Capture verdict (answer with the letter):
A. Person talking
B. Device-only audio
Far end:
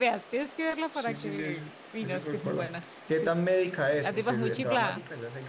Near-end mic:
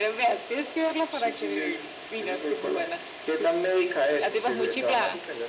B